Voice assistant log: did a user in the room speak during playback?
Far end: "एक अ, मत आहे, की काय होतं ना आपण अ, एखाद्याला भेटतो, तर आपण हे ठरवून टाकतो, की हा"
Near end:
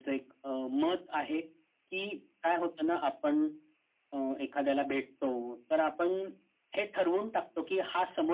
No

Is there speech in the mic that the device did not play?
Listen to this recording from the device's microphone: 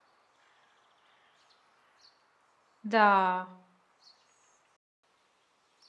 Yes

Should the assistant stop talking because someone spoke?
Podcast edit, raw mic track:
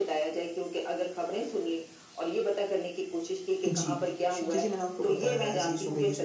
Yes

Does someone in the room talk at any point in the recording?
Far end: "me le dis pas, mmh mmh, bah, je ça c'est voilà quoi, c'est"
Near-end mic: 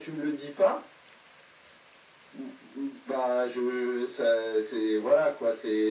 No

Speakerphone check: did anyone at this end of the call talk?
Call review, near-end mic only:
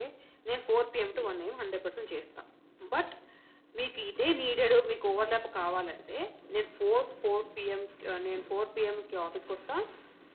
No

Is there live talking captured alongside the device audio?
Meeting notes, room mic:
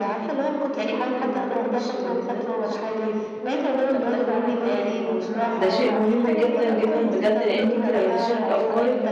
Yes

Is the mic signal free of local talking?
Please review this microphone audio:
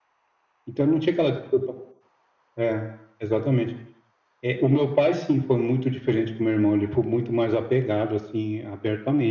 Yes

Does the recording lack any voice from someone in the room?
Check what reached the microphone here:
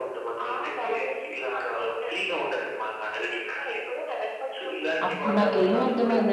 No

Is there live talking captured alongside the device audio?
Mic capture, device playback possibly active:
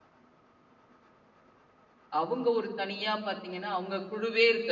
Yes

